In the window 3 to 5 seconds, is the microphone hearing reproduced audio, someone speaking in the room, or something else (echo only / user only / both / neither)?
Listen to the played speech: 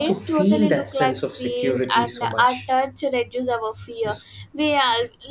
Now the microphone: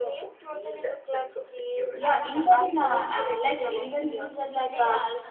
both